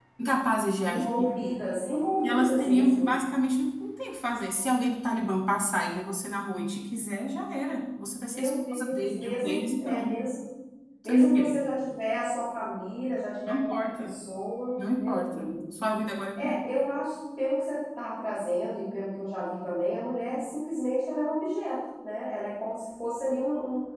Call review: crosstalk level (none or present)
present